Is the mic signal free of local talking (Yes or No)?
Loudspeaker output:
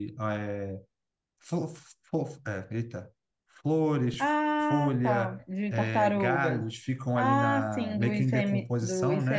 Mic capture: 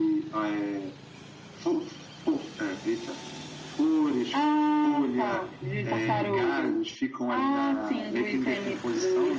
No